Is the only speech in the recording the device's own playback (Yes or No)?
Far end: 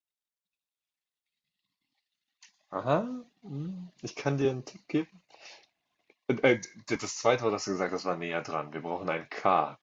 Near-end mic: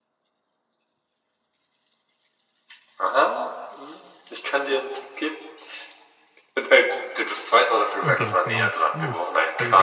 No